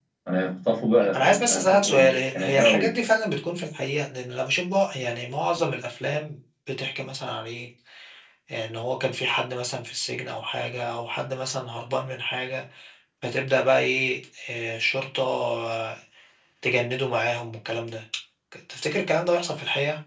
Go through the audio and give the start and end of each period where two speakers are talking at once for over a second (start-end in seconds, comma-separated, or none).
1.1-2.9